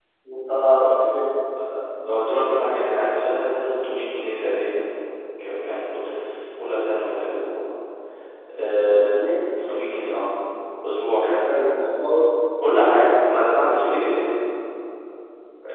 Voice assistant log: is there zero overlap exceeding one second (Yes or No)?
No